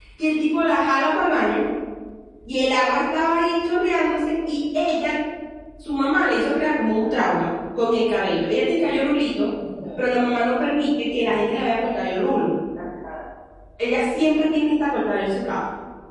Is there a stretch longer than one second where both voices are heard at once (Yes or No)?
No